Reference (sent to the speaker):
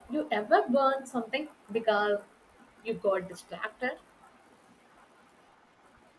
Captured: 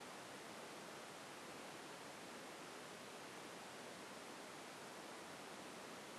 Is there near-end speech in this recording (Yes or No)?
No